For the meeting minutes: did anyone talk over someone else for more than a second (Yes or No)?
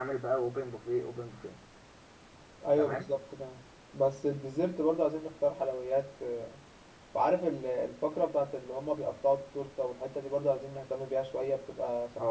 No